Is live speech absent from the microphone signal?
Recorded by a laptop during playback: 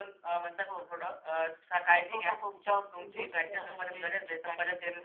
Yes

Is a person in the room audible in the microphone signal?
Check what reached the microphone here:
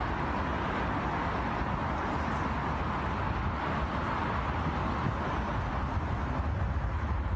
No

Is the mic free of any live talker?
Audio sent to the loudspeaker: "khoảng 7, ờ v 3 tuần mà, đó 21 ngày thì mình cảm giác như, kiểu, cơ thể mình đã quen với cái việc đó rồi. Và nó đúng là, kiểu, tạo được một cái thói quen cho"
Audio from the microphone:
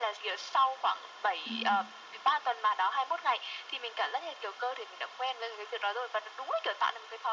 No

